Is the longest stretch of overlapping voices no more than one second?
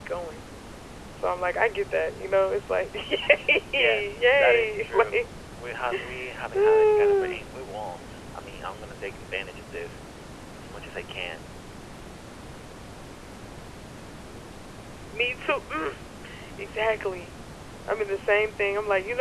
No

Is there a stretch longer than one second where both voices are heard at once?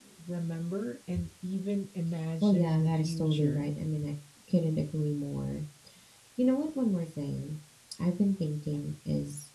Yes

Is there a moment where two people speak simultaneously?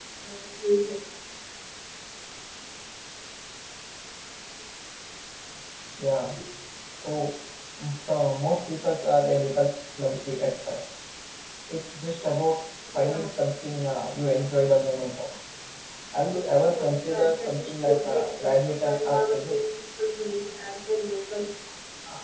Yes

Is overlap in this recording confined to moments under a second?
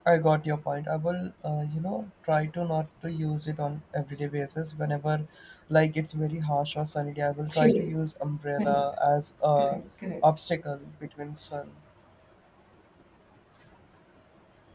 Yes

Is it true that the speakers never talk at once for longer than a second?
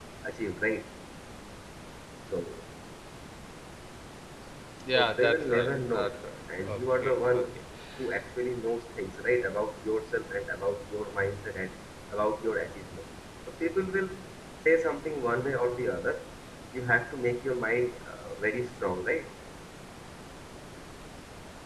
No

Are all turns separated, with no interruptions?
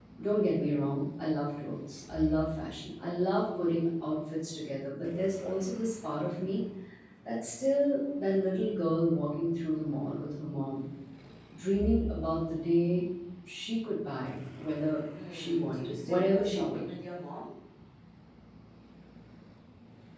No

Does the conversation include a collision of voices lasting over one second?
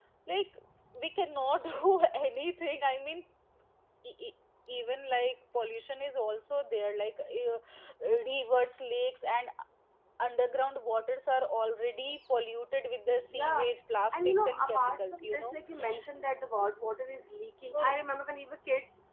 Yes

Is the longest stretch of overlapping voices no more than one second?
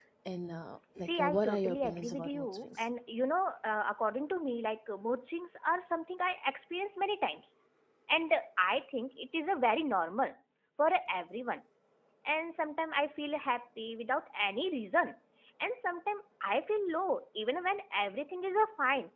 No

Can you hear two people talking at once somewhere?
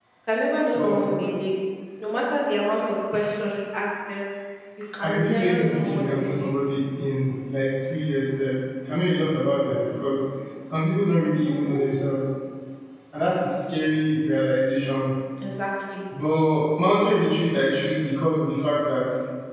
Yes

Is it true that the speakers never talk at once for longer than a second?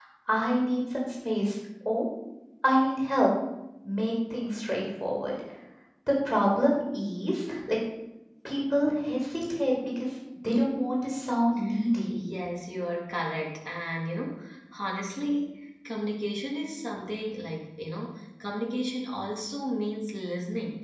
Yes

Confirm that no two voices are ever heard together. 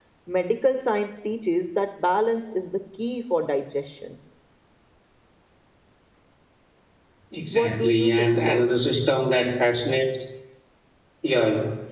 No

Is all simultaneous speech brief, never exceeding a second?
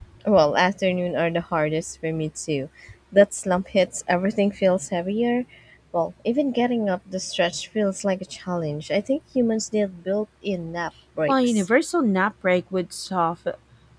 Yes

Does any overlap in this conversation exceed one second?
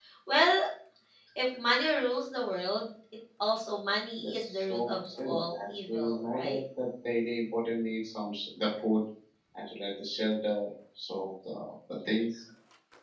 Yes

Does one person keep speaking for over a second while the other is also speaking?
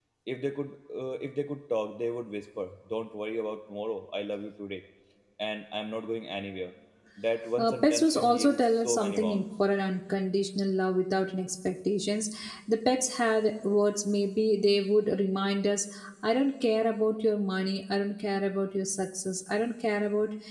Yes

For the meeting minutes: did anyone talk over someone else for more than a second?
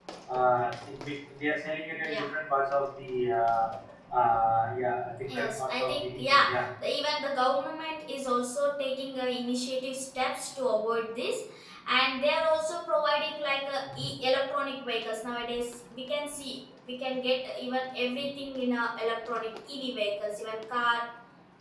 Yes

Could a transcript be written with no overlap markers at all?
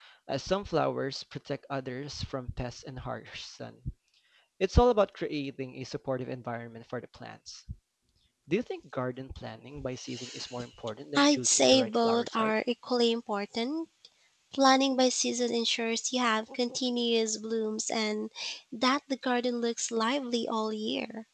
No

